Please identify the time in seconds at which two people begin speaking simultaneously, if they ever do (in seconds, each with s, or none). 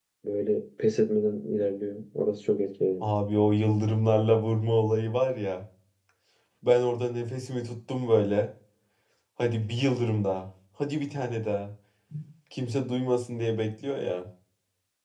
none